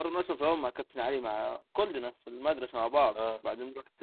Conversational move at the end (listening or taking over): listening